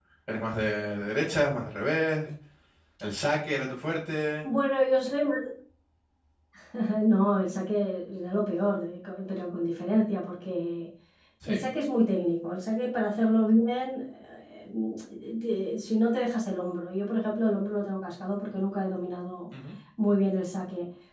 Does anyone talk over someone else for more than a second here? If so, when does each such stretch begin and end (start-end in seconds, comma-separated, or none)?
none